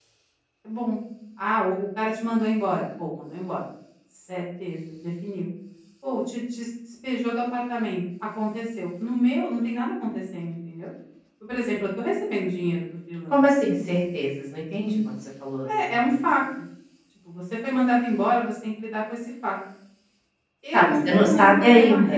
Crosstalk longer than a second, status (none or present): present